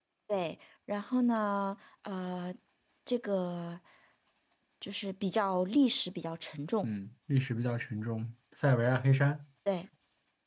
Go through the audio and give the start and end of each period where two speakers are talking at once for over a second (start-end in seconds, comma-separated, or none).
none